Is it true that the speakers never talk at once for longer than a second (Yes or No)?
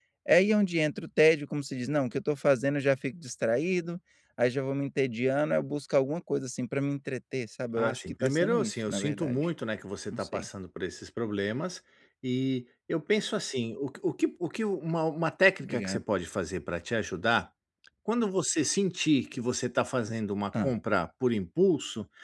No